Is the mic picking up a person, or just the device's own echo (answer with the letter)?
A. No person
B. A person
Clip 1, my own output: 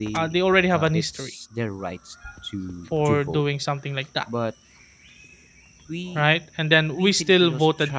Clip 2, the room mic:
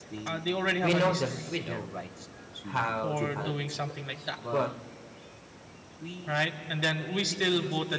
B